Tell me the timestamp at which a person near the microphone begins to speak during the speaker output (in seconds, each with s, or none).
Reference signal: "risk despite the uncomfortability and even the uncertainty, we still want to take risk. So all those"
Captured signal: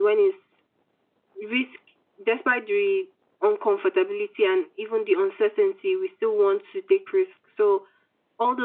none